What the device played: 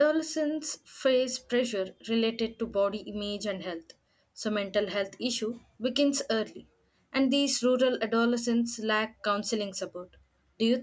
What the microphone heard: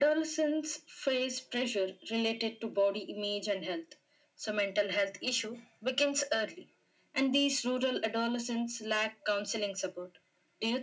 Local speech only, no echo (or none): none